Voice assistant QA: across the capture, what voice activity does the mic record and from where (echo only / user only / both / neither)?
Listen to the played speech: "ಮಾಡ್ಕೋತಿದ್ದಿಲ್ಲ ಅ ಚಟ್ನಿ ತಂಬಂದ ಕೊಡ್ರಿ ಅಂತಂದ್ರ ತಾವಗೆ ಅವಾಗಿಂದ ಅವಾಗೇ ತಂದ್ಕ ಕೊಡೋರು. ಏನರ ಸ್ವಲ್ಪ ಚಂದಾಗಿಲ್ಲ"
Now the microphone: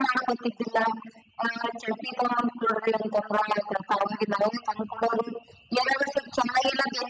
echo only